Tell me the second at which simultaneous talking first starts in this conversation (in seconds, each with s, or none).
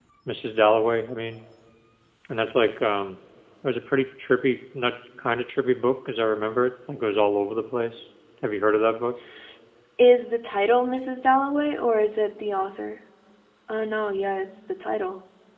none